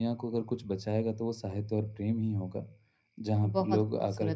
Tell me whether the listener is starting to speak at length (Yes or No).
Yes